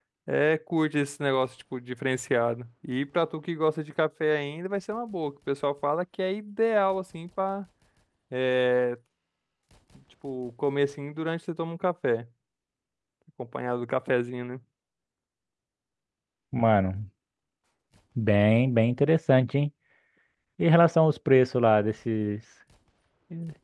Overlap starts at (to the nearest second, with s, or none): none